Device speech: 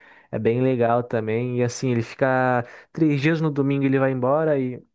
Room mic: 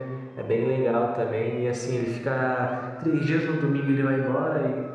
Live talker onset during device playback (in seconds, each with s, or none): none